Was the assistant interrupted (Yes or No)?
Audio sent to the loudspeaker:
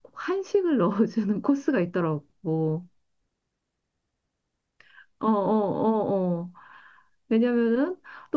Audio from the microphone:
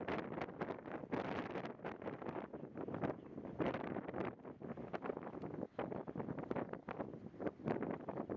No